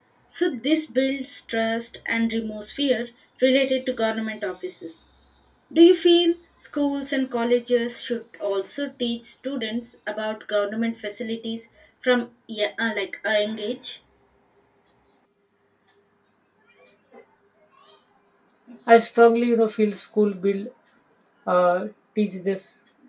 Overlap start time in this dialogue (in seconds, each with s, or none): none